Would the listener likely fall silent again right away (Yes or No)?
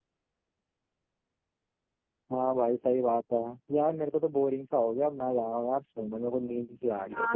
No